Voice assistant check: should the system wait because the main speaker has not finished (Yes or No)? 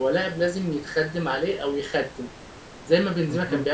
Yes